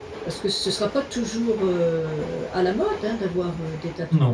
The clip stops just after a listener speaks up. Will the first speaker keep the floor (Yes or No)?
No